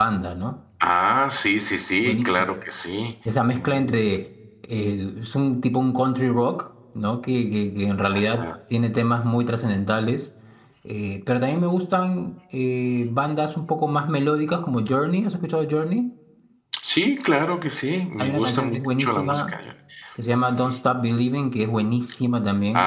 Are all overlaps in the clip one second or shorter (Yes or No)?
No